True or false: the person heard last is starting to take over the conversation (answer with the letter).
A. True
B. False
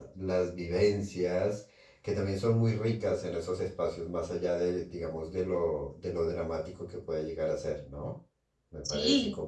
B